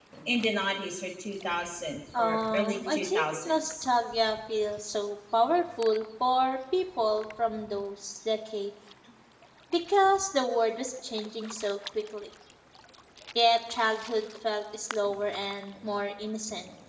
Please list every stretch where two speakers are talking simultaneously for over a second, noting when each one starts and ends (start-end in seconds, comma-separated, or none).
2.2-3.8